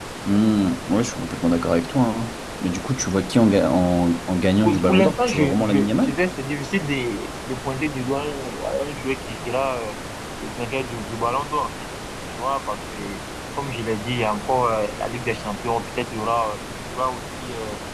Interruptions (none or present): present